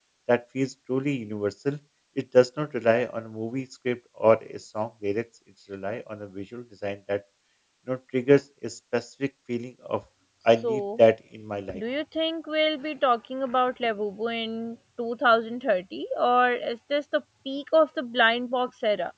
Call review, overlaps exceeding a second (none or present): none